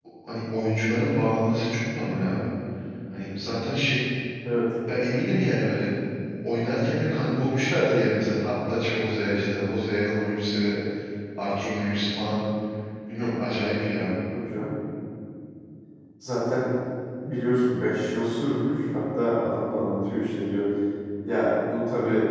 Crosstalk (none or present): none